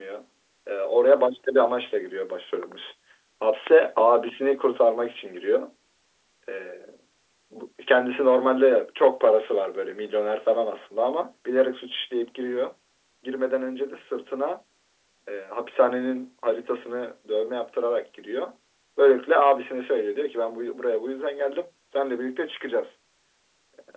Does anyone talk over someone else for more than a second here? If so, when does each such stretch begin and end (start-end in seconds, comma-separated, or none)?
none